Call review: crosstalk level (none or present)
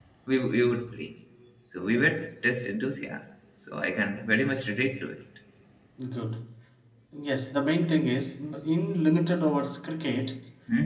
none